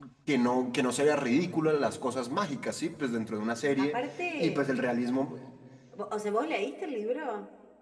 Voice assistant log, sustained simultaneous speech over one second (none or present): none